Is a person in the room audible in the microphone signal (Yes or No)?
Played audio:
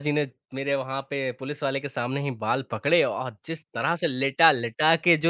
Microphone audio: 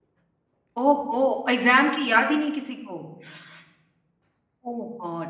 Yes